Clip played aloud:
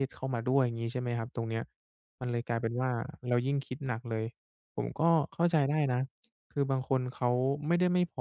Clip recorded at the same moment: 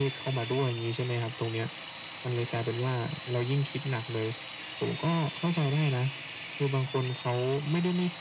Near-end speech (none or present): none